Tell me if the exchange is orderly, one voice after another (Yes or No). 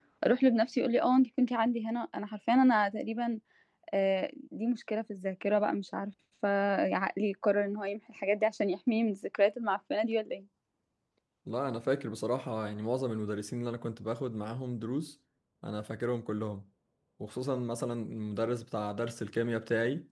Yes